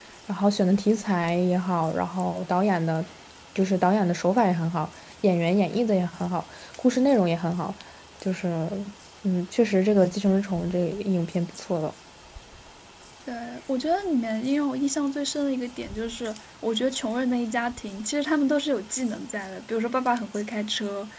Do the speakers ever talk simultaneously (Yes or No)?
No